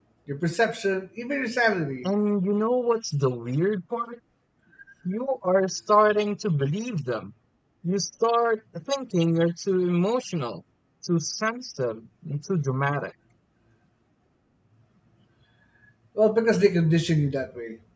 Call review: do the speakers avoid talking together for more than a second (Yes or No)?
Yes